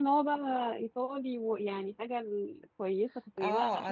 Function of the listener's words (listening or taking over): taking over